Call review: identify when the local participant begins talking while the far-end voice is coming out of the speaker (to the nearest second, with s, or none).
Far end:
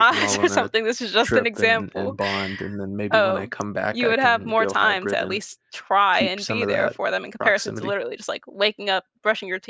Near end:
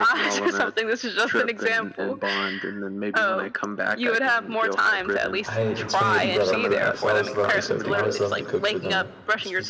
5 s